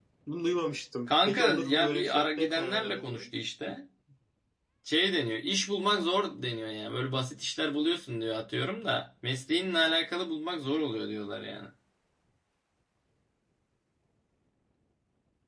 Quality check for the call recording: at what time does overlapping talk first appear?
1 s

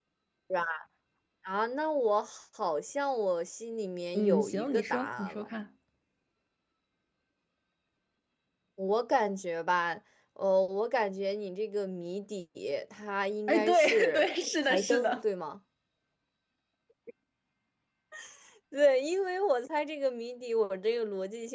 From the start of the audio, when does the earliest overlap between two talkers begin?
4 s

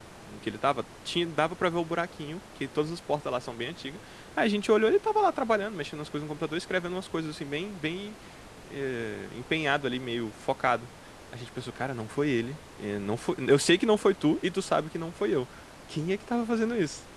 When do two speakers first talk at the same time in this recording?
none

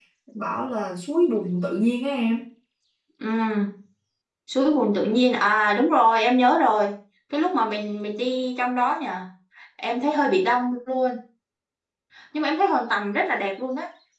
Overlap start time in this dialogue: none

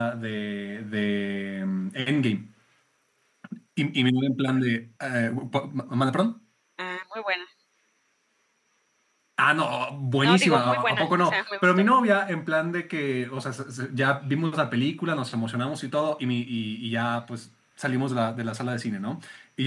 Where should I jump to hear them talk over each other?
10 s

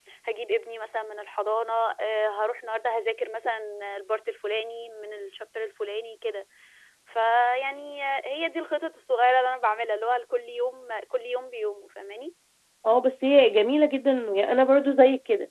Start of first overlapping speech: none

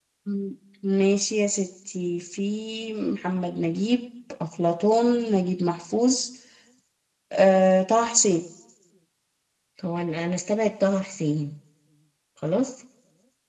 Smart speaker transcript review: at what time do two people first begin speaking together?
none

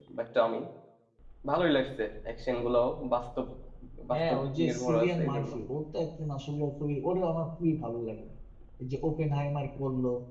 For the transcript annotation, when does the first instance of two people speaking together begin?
4 s

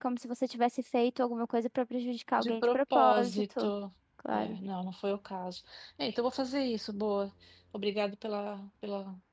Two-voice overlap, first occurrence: 2 s

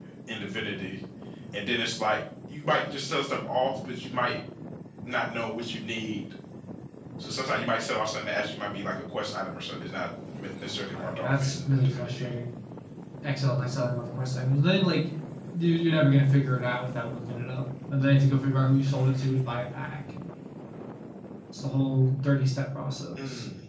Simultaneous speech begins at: 11 s

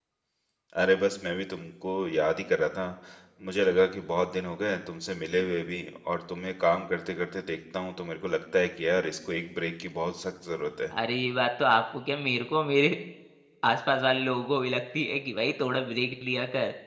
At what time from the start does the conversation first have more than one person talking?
none

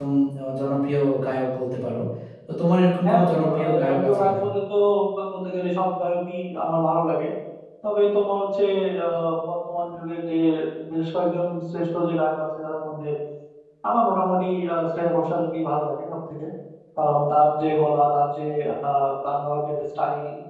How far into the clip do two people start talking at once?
3 s

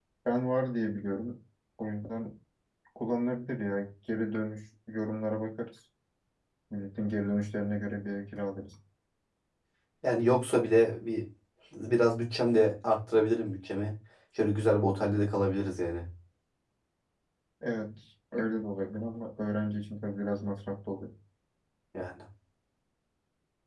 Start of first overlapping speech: none

